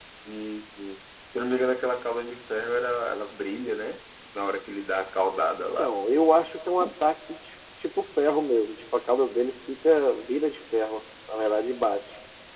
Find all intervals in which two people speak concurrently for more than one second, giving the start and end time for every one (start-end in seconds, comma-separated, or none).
none